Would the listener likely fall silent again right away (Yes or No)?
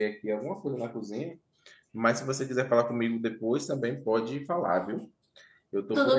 Yes